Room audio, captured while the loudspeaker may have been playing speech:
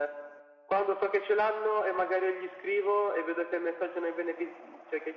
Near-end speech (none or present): none